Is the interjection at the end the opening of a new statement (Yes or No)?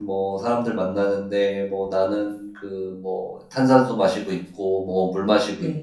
No